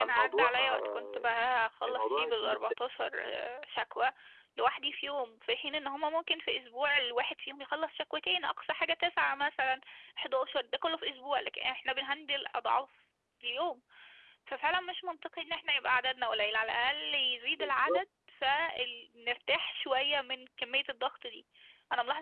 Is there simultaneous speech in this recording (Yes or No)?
Yes